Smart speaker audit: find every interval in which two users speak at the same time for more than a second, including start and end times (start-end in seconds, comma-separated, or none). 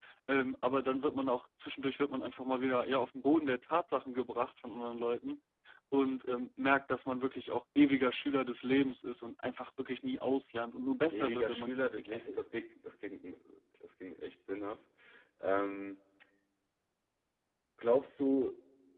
11.1-12.4